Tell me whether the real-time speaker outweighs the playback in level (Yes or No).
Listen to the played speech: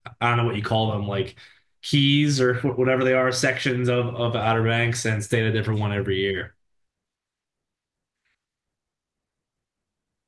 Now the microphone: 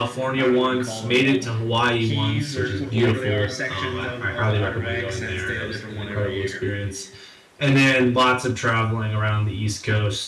Yes